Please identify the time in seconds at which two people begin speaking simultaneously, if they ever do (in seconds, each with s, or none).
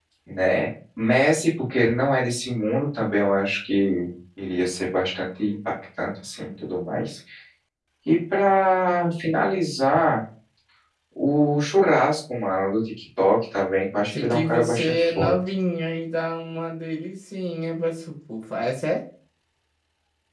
14.1 s